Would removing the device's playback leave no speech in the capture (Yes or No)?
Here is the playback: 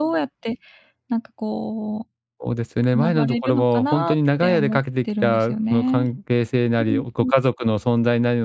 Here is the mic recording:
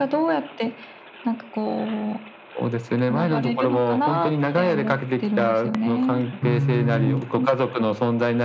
No